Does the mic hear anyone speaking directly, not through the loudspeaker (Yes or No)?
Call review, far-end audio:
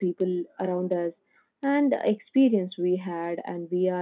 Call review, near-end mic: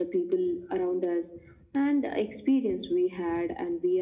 No